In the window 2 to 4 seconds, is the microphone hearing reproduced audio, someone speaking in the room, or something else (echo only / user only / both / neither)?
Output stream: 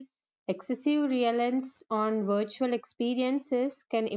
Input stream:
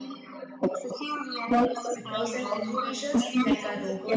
both